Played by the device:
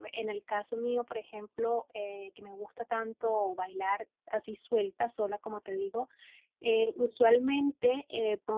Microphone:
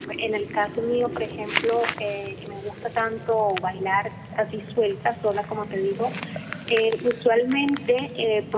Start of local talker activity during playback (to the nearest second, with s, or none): none